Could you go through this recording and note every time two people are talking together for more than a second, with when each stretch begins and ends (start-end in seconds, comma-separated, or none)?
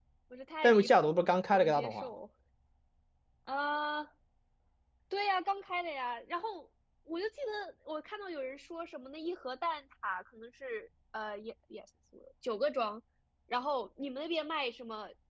0.6-2.1